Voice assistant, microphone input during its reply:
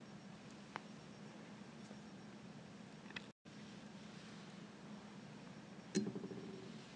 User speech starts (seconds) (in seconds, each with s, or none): none